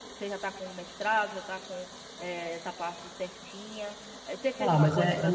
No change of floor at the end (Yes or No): No